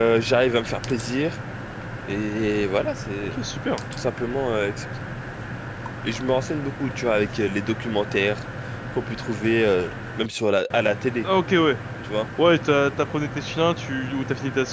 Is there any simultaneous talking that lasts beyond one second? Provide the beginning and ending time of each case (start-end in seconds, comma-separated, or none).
none